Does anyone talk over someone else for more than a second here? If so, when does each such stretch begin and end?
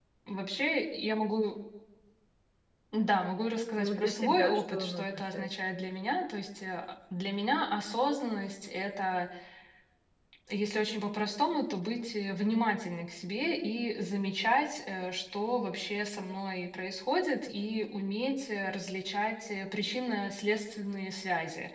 3.8-5.5

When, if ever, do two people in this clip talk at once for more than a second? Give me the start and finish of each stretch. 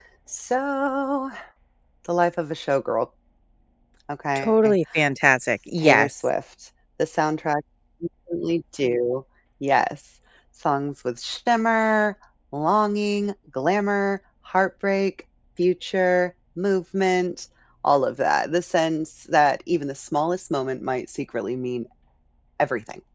none

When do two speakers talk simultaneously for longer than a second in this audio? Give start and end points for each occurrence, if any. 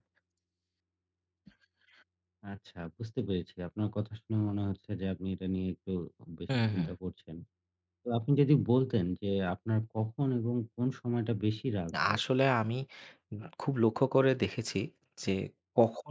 none

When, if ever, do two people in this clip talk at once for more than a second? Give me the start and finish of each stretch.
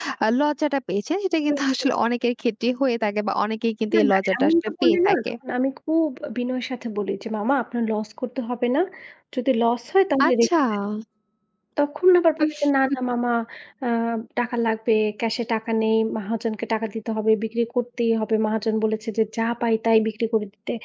3.9-5.3

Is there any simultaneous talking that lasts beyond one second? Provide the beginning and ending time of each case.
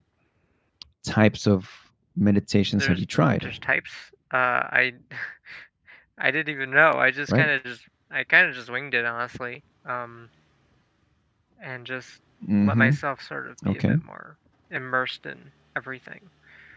none

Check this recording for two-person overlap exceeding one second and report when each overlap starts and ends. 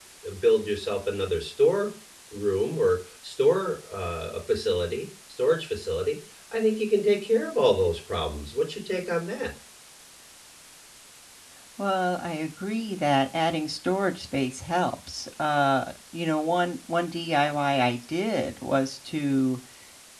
none

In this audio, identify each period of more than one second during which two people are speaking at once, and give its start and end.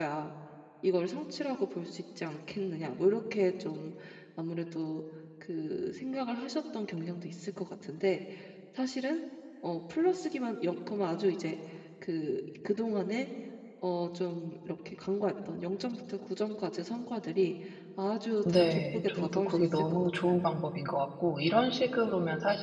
18.4-20.4

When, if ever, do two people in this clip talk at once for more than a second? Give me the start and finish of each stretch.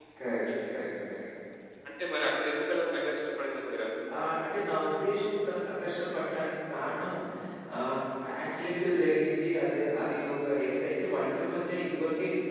none

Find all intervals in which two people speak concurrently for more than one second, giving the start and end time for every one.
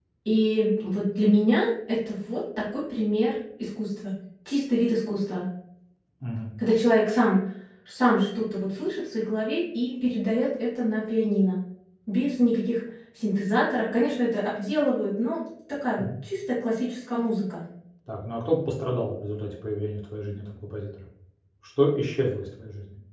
none

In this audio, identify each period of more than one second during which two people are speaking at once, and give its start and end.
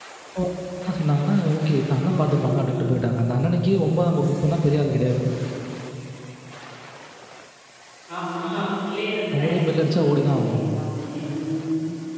9.4-10.6

